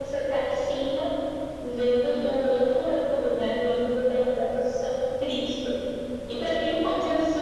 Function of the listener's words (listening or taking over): listening